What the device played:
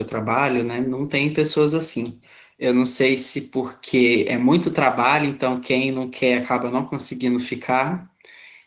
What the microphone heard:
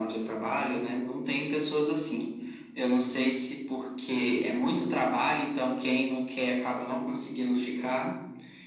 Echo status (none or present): present